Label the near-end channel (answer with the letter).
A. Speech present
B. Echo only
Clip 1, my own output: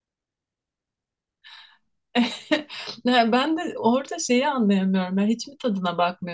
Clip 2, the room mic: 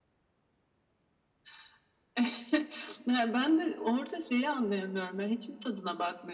B